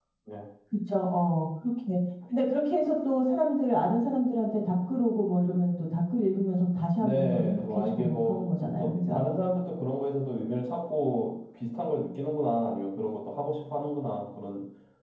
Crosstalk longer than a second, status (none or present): present